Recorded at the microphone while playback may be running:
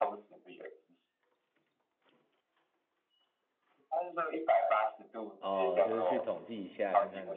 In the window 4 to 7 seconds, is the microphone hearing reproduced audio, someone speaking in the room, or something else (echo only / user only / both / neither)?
both